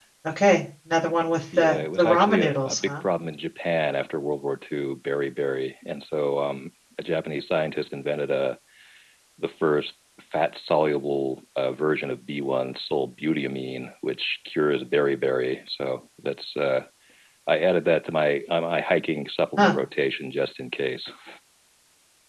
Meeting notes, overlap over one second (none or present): present